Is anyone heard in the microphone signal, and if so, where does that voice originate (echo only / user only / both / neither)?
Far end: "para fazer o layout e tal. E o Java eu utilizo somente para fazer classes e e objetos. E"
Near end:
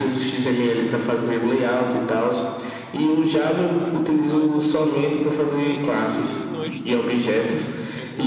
both